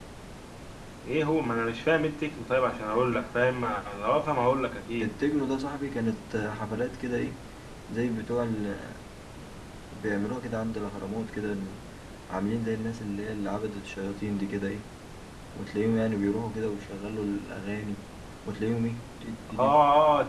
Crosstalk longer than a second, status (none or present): none